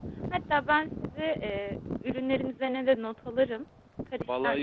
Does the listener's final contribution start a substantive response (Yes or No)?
Yes